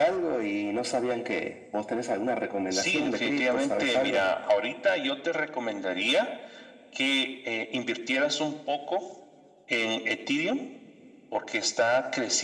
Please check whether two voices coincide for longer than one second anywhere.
Yes, from 2.7 s

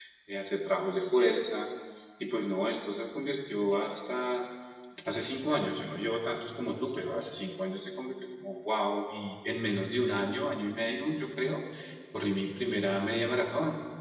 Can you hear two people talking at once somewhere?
No

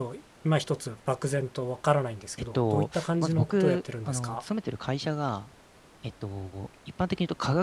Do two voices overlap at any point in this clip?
Yes, from 2.6 s

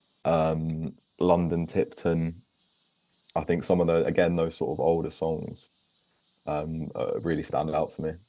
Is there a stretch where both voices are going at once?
No

